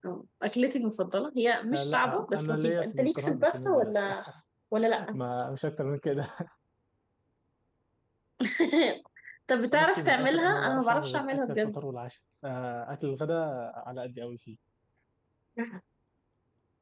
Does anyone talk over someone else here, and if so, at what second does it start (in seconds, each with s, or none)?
1.7 s